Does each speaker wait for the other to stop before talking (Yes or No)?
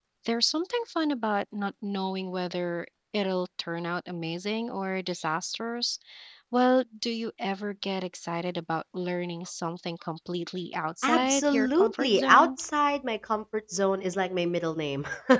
No